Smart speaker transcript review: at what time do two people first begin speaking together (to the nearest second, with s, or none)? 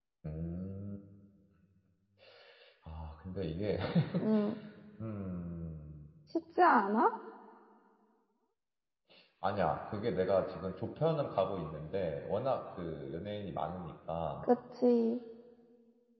none